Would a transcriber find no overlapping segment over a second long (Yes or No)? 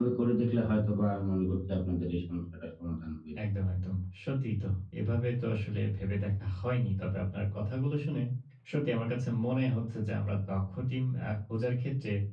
Yes